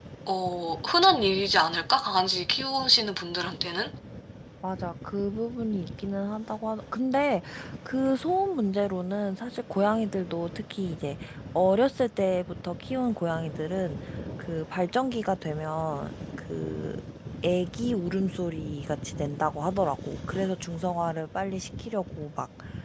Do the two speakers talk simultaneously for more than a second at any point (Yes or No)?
No